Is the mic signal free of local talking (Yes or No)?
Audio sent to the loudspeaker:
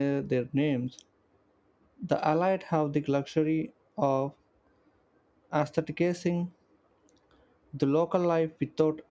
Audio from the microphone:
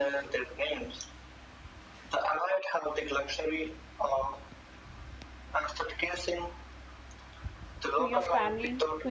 No